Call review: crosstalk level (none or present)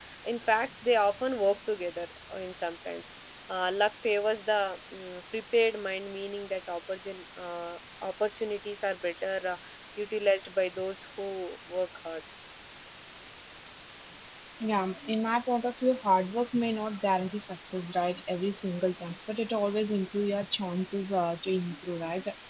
none